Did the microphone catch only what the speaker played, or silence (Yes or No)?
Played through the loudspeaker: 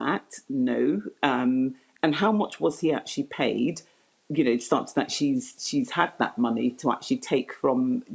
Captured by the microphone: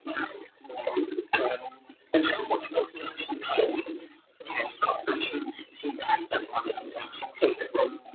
Yes